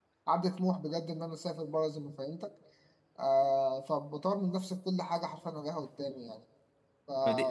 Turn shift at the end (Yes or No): Yes